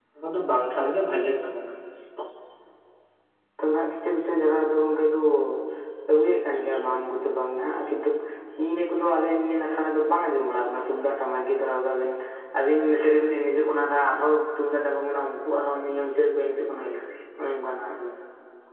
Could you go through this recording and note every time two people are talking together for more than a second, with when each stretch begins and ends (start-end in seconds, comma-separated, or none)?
none